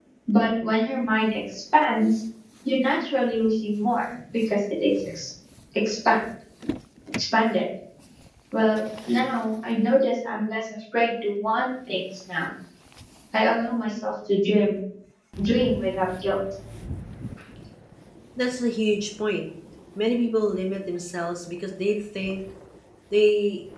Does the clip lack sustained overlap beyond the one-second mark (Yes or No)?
Yes